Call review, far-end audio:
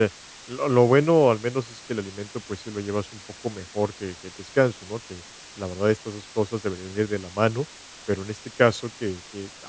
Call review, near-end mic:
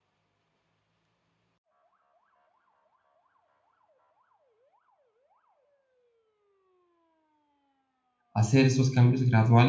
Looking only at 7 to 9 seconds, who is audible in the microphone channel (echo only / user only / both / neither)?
user only